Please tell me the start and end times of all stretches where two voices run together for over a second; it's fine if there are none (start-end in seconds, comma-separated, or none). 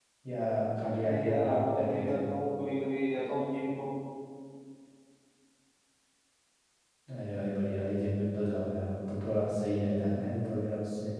1.0-2.3